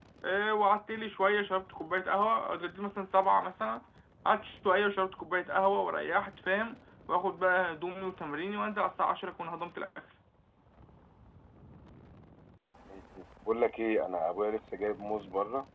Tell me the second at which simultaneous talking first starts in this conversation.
none

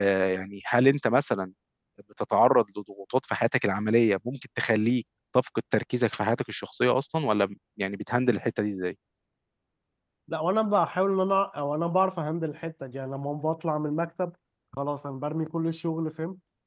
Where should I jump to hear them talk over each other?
none

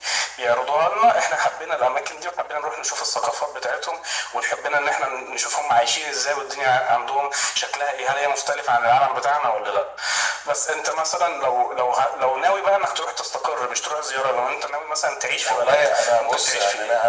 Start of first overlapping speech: 15 s

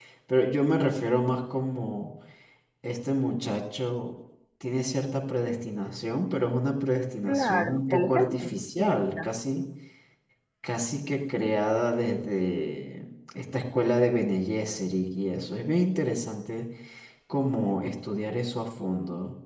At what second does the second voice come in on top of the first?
7 s

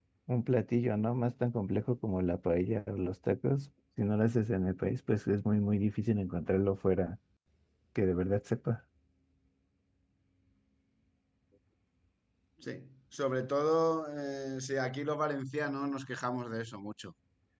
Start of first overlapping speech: none

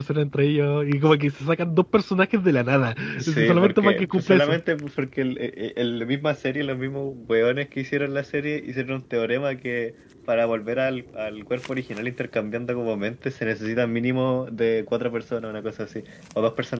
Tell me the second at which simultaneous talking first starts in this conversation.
3 s

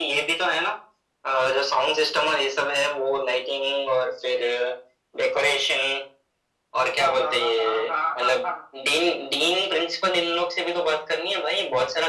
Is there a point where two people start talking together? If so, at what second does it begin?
7 s

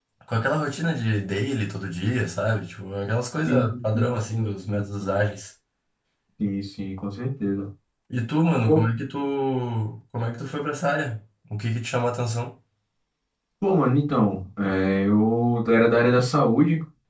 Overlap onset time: 3 s

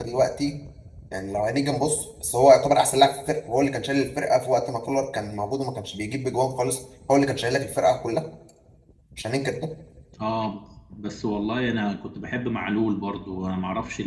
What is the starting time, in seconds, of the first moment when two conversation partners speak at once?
none

